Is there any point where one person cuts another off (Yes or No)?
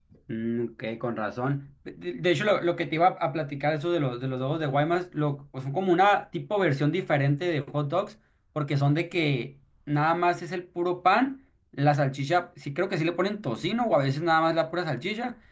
No